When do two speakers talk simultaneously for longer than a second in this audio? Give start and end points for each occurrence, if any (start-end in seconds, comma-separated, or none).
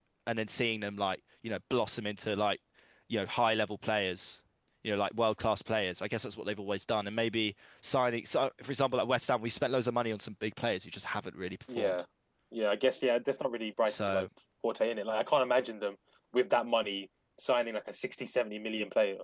none